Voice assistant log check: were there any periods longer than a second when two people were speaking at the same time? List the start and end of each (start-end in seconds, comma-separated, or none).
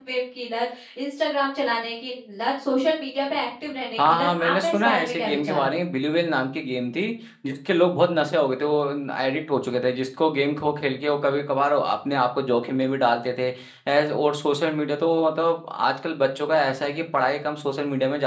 4.0-5.7